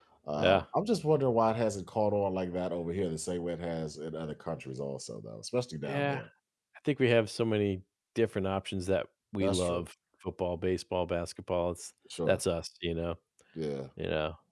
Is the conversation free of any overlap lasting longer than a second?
Yes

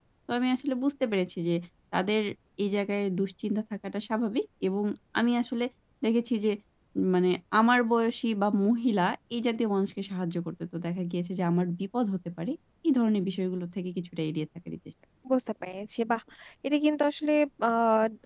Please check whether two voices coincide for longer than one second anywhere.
No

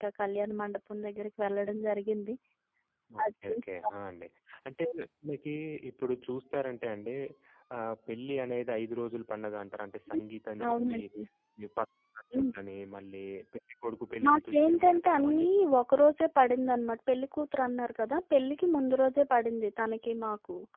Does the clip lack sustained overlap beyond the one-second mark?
No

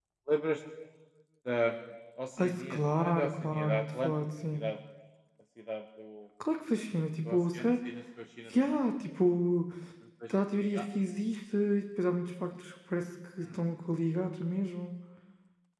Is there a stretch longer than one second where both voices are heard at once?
Yes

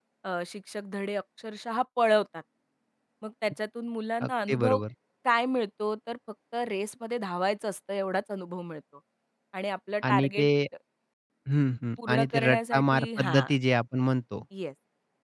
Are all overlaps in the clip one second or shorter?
No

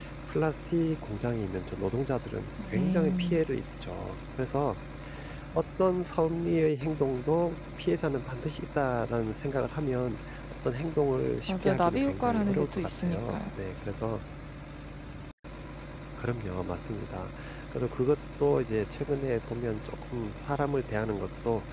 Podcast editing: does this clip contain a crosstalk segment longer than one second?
Yes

